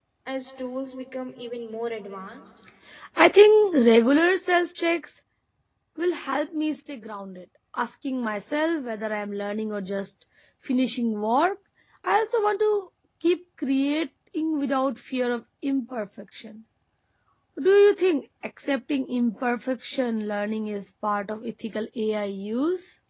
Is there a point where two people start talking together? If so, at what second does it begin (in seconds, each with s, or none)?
none